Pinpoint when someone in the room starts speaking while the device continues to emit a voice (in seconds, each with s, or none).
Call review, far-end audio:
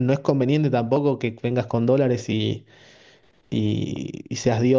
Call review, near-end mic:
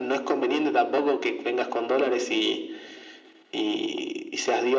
none